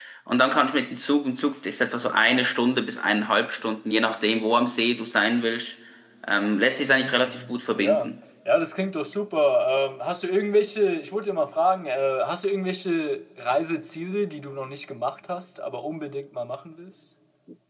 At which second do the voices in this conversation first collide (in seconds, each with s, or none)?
6.8 s